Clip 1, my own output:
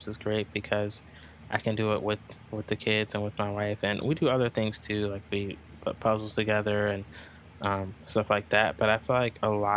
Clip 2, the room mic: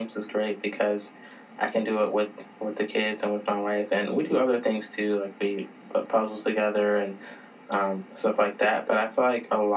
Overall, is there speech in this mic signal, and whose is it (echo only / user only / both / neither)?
echo only